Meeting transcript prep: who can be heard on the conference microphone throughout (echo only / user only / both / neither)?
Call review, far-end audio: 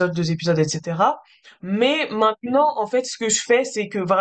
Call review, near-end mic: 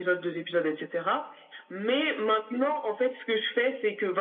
echo only